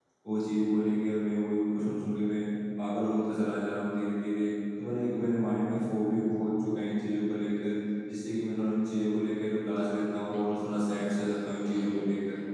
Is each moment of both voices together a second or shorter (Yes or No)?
No